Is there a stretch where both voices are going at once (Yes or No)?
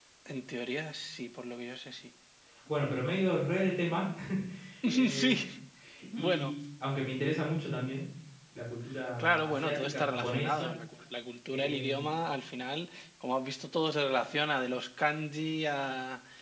Yes